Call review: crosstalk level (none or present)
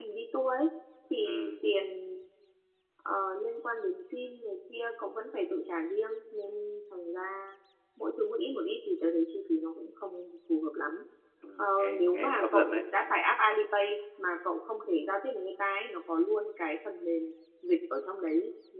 present